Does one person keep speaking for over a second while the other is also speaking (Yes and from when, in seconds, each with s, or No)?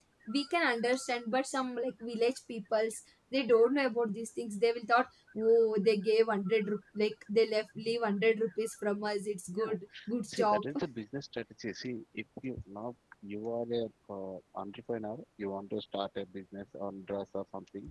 No